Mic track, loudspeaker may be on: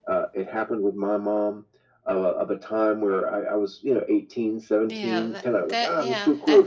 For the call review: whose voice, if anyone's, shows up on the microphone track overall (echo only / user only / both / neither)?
both